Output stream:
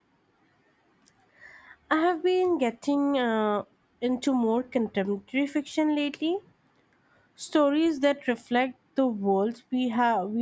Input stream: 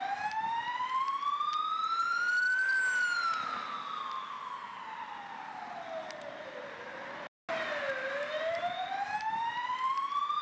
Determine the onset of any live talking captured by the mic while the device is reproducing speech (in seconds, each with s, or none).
none